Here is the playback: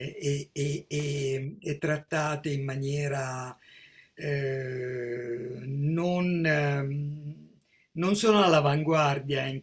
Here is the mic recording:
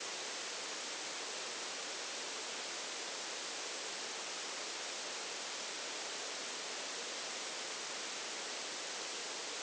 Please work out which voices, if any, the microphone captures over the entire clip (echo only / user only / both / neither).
neither